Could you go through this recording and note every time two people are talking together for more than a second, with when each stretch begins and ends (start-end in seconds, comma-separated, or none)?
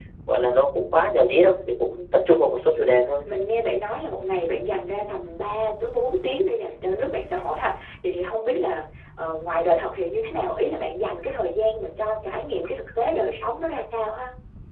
none